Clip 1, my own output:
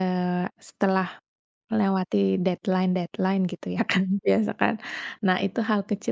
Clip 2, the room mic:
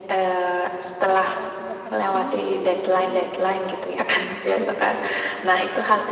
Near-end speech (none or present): present